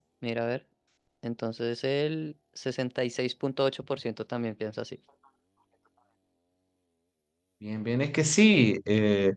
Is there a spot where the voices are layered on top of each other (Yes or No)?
No